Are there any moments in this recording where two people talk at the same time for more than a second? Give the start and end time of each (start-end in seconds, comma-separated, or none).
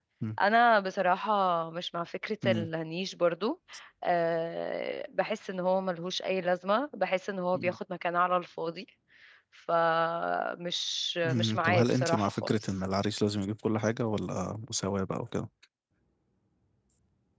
11.2-12.6